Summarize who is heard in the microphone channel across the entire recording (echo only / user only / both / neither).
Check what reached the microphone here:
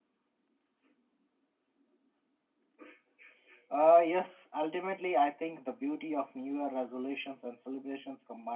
user only